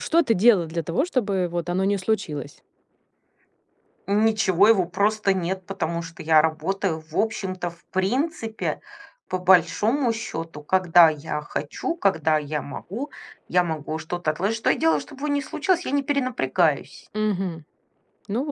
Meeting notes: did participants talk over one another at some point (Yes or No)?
No